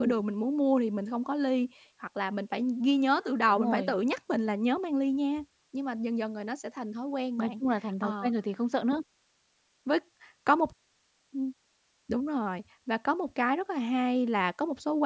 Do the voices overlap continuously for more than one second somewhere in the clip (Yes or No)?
No